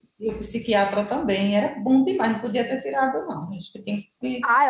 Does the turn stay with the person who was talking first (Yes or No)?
No